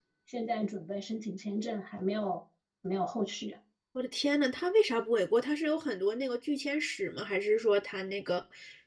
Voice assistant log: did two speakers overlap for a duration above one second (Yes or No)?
No